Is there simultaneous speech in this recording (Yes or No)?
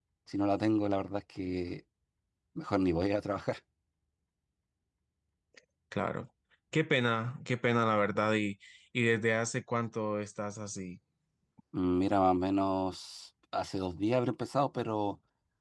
No